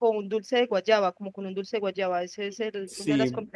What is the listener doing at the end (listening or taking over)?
taking over